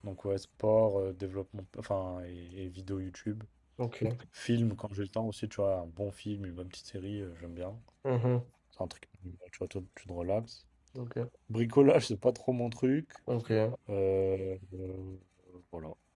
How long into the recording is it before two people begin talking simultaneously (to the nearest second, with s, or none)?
none